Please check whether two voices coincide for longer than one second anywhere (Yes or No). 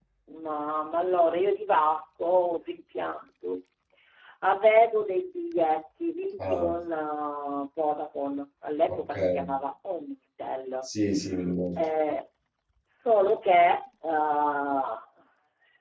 No